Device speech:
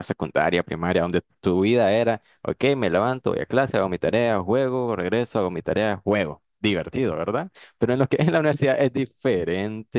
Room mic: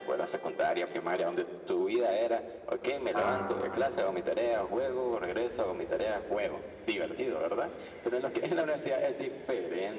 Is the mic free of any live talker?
No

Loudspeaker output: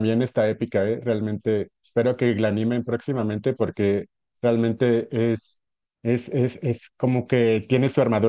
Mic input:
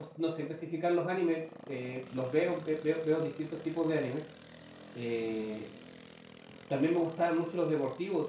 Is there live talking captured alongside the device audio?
Yes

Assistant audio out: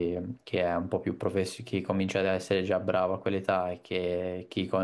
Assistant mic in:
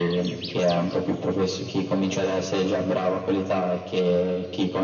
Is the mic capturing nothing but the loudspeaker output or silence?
Yes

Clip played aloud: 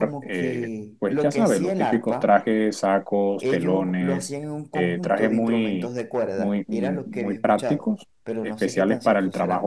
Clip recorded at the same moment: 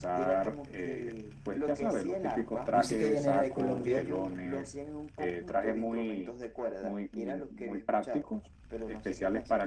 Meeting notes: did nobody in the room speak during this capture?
No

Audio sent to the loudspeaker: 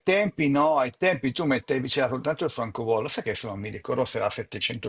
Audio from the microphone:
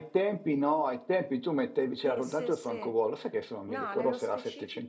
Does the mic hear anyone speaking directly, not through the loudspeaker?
Yes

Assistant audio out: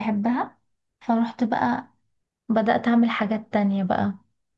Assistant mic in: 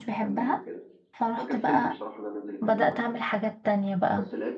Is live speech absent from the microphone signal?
No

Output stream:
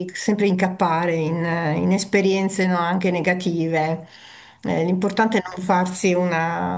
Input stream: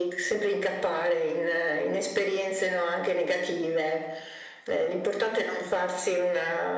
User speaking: No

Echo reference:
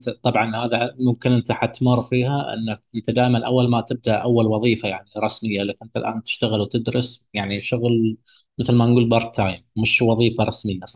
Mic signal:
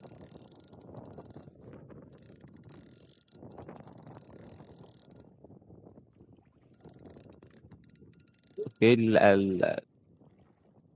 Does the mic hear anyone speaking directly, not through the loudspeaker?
Yes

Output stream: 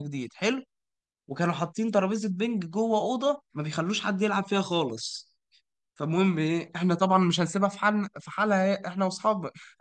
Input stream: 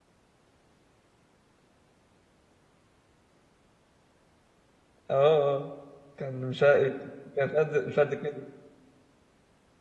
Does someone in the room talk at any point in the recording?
Yes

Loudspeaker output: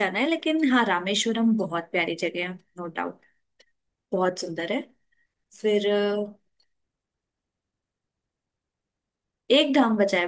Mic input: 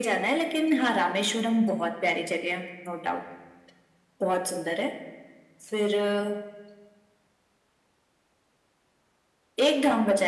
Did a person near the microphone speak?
No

